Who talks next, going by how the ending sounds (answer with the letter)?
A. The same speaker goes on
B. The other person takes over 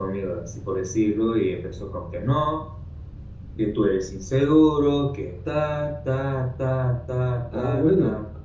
B